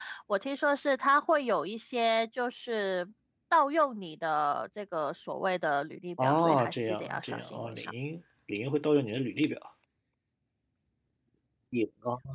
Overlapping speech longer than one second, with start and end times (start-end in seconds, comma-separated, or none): 6.2-7.9